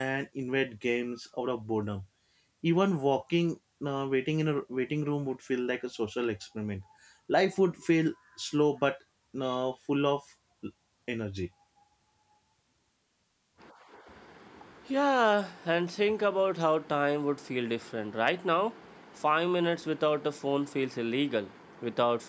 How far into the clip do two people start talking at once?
none

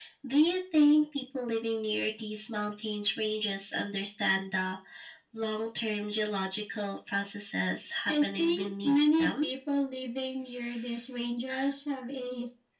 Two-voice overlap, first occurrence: 8.1 s

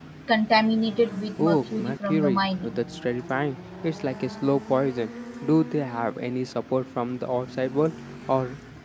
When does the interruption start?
1.4 s

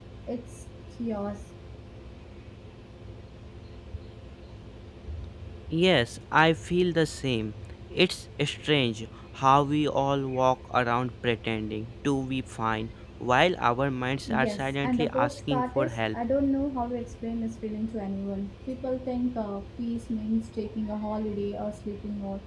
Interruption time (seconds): 14.3 s

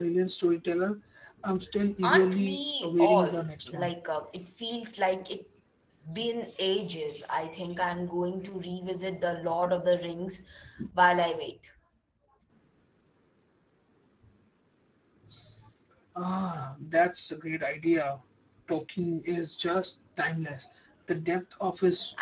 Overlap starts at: 2.0 s

